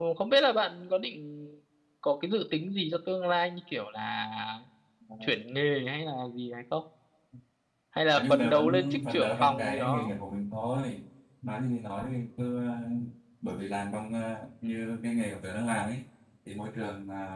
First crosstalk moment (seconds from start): 8.2 s

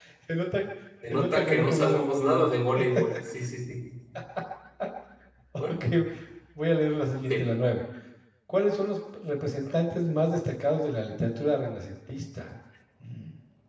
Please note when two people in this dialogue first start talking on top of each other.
1.1 s

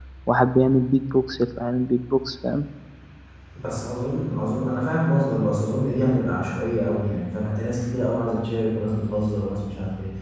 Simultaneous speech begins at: none

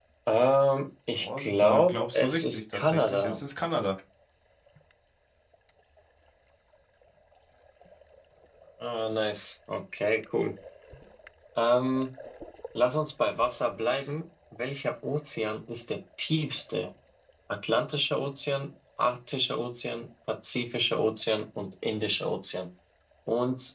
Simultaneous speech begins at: 1.1 s

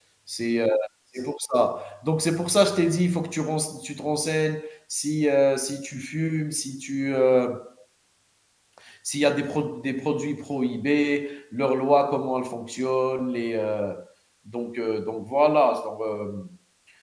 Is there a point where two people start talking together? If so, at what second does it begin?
none

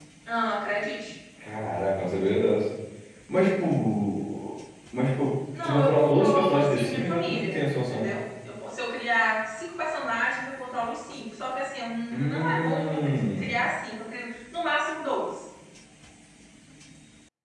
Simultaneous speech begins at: 5.6 s

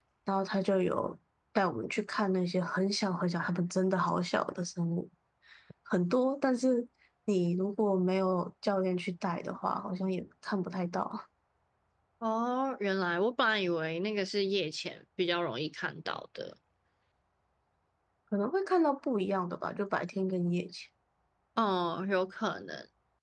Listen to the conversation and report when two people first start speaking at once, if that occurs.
none

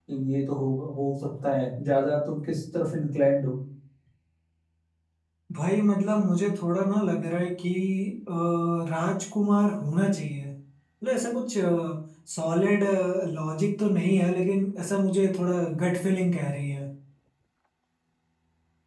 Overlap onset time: none

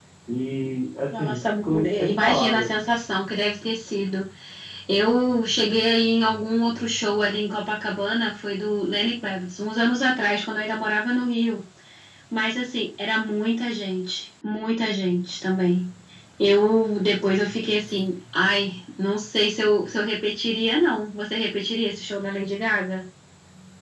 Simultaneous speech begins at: 1.1 s

